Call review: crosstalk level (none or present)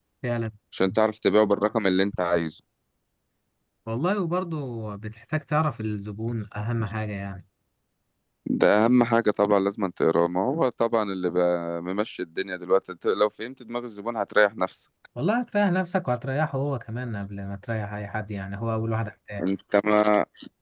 none